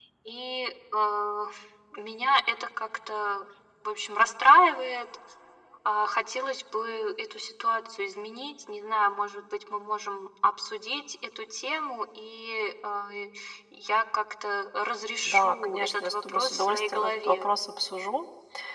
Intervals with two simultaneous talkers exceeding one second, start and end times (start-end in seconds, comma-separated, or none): 15.2-17.5